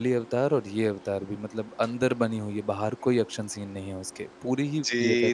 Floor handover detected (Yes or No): Yes